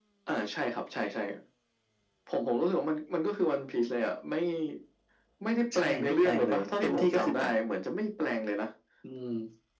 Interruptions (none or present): present